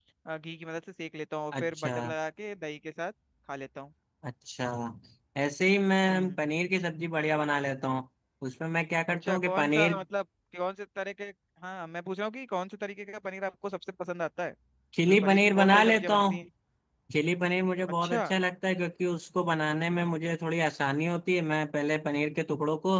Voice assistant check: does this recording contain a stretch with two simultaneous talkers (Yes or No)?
Yes